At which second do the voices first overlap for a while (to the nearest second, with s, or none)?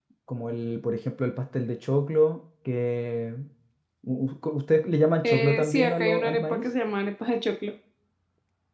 5 s